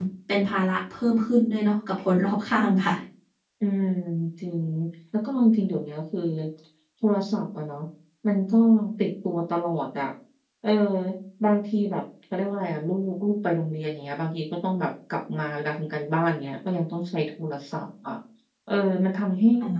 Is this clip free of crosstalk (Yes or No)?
Yes